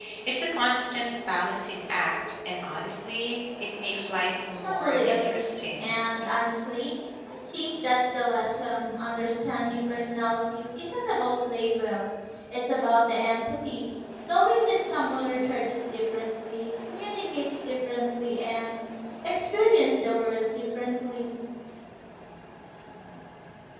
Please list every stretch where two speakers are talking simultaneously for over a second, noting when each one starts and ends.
4.6-5.9

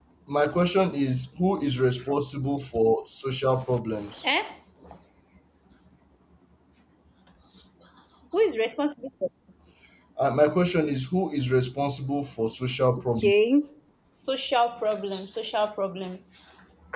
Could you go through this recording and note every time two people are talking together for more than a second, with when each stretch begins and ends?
none

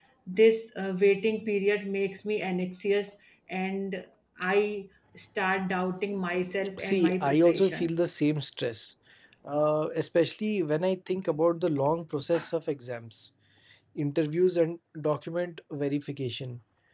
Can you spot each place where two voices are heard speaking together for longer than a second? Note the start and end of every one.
6.8-8.0

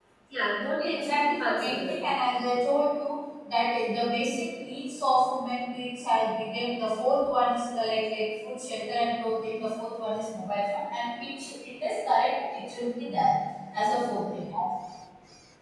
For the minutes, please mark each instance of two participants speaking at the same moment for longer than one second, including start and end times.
0.8-2.0

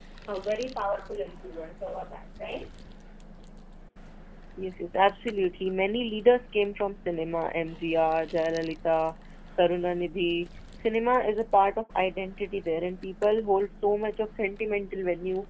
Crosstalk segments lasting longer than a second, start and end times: none

